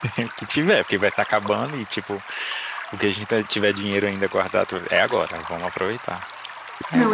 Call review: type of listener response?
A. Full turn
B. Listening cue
A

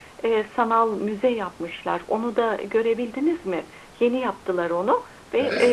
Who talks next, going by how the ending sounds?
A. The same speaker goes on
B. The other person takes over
A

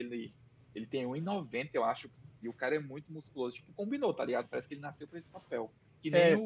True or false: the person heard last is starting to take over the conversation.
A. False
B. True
A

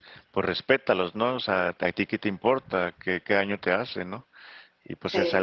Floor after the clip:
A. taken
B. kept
B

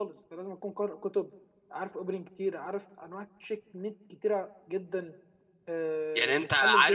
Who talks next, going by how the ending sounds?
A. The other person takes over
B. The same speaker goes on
A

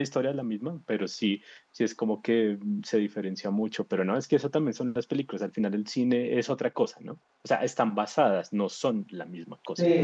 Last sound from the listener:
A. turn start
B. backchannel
A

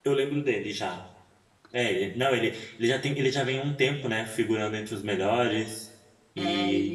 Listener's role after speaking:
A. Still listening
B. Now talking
B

